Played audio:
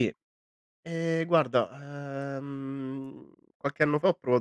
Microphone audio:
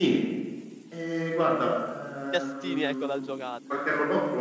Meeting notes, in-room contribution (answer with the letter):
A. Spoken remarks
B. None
A